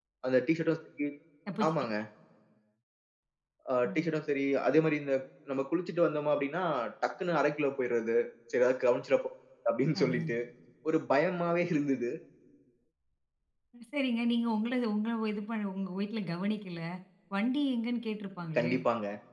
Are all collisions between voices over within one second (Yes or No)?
Yes